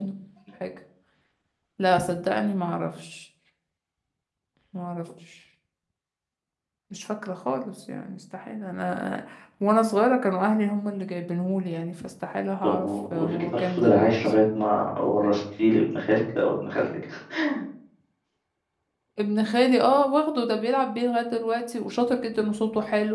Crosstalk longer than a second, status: present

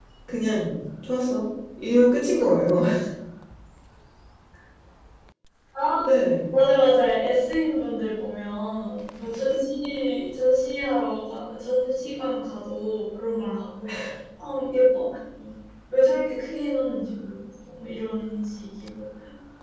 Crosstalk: none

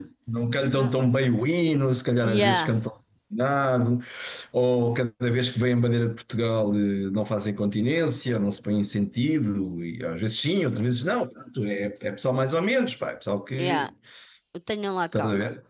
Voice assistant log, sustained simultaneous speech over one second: none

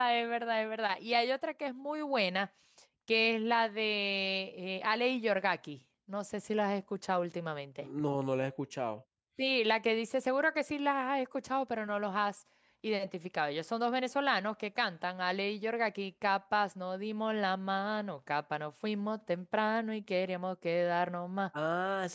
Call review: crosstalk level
none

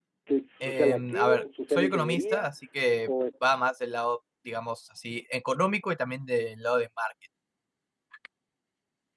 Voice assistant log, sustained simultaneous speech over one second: present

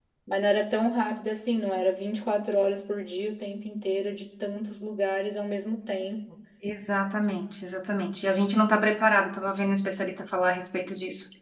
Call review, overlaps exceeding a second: none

